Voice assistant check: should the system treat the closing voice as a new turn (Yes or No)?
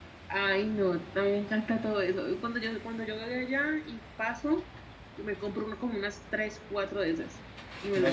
Yes